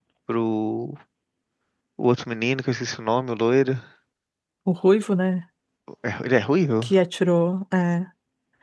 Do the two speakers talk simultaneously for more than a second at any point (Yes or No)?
No